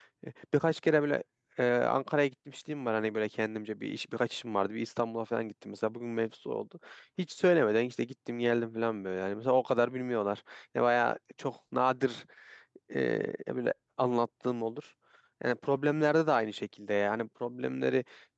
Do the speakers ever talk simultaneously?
No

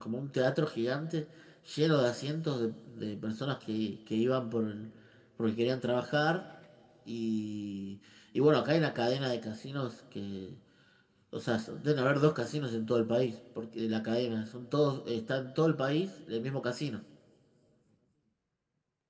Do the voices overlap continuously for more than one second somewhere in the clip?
No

